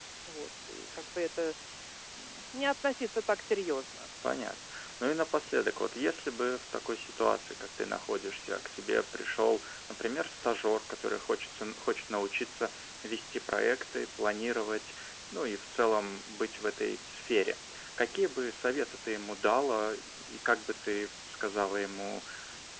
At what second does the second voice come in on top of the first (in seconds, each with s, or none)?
none